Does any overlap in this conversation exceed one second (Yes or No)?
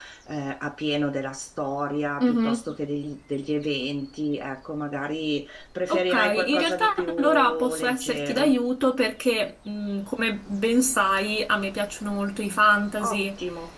Yes